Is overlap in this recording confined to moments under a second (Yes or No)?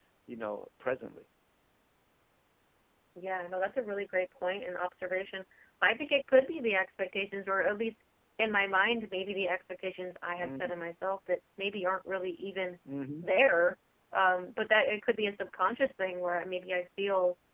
Yes